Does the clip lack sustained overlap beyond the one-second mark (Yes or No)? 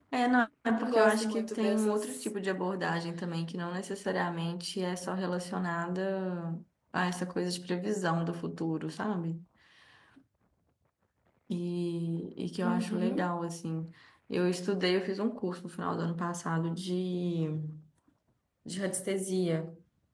No